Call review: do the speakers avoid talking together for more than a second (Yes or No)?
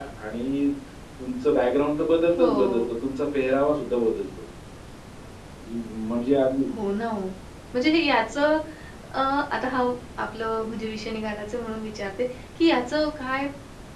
Yes